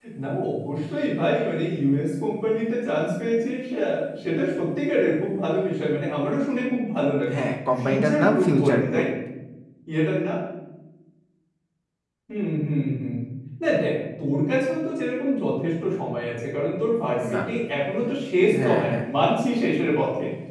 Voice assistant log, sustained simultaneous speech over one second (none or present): present